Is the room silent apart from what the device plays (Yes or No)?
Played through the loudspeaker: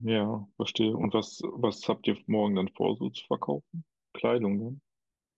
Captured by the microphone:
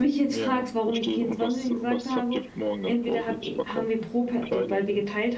No